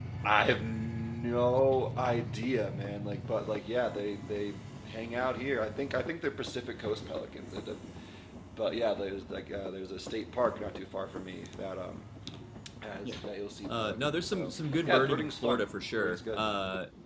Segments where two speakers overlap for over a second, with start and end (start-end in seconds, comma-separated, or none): 13.7-15.6